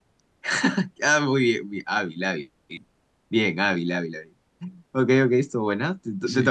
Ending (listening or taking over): taking over